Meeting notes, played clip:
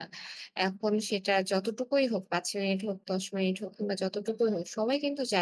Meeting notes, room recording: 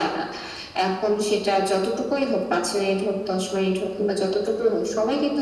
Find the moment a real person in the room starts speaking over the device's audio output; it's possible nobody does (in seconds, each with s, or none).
none